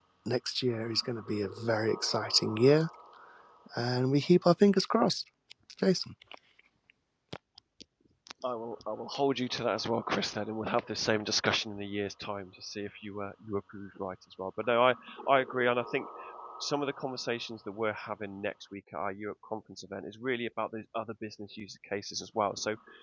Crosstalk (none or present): none